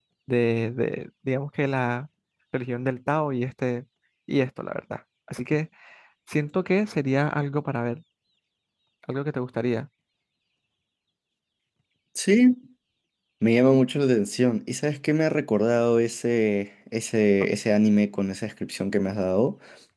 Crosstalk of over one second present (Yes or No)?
No